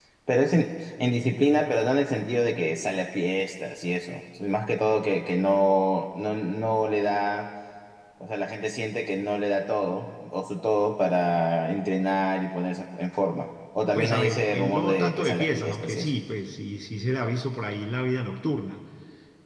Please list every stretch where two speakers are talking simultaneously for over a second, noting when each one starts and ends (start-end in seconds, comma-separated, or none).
13.9-16.2